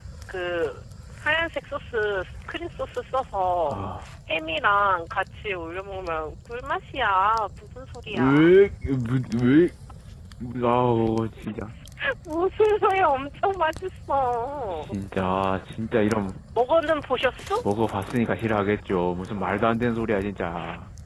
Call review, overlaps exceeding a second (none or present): none